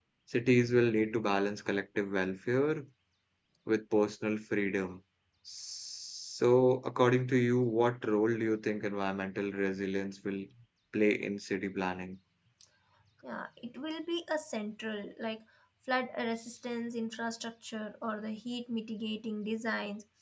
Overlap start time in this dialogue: none

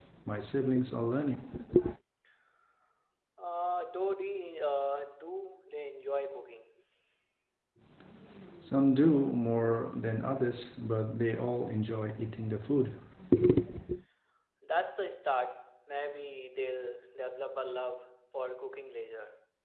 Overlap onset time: none

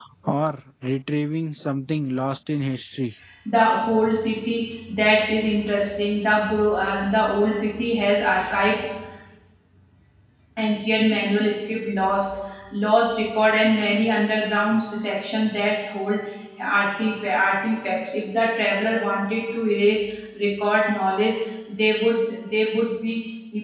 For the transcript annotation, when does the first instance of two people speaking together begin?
none

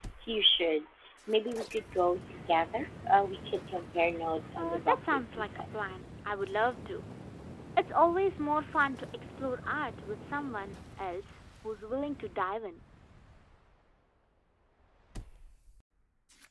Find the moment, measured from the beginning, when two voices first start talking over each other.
4.6 s

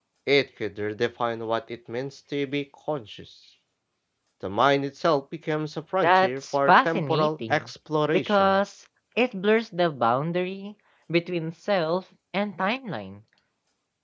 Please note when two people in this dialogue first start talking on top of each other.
6.0 s

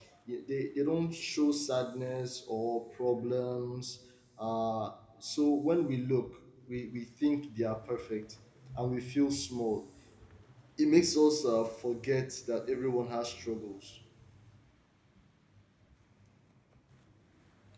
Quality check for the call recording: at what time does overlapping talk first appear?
none

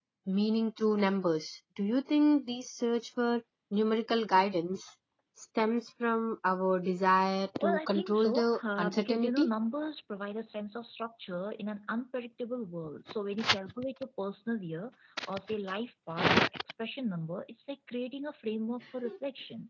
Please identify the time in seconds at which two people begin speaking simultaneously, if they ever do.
7.6 s

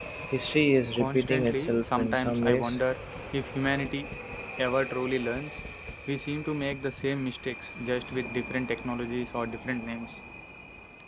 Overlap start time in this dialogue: 1.0 s

